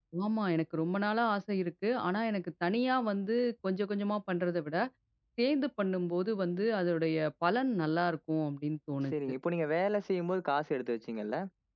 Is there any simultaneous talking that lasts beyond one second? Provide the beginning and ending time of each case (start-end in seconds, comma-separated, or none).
none